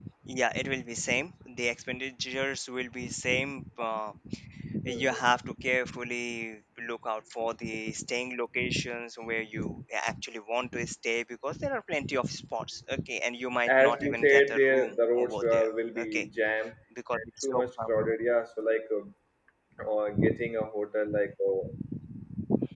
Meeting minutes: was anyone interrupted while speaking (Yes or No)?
Yes